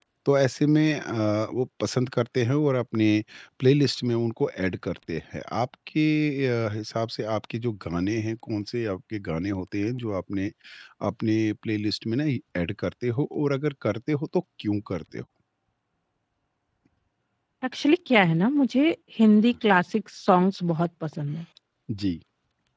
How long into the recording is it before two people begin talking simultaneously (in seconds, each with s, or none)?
none